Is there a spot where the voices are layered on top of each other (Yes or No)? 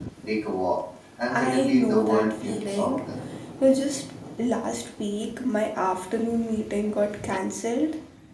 Yes